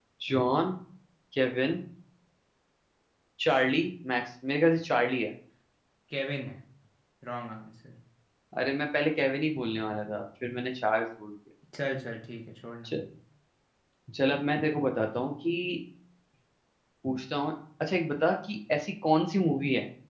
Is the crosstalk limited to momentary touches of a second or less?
Yes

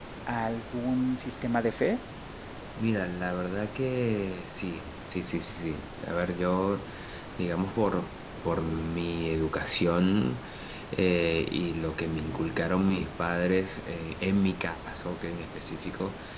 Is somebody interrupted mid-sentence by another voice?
No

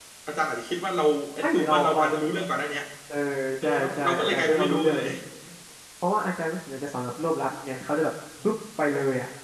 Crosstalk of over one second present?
Yes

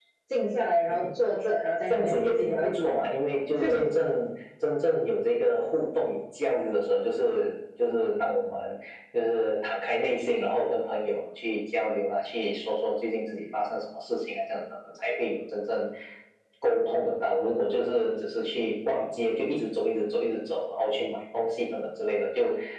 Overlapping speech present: Yes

